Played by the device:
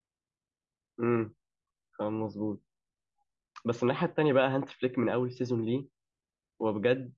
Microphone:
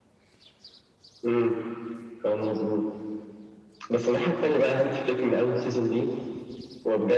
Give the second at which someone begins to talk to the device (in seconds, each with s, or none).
none